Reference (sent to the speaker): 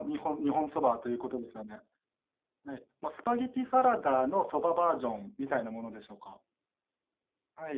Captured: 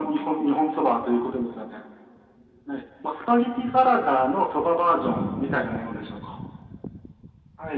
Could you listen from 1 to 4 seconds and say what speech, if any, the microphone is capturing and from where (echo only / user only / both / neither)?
echo only